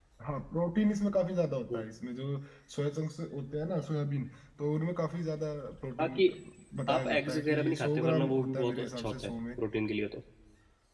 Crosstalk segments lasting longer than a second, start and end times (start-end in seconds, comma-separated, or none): 6.9-9.3